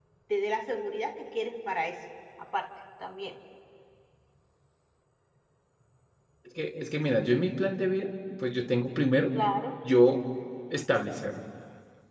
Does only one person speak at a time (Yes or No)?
Yes